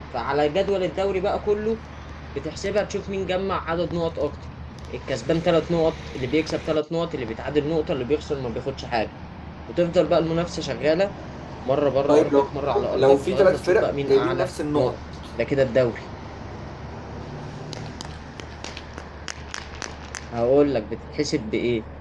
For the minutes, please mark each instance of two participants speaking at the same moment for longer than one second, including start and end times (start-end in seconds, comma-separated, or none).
13.0-15.0